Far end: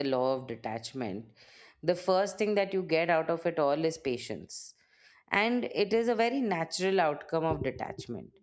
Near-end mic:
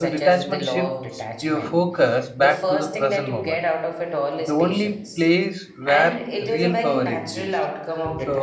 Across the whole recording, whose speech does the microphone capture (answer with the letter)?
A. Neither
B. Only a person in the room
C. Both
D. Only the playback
C